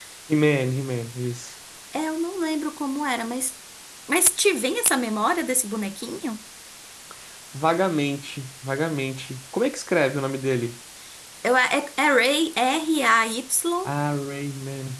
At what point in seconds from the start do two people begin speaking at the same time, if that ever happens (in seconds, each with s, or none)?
none